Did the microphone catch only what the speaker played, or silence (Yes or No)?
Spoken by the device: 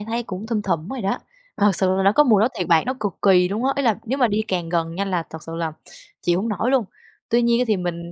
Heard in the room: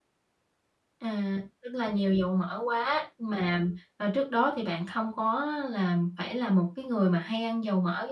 No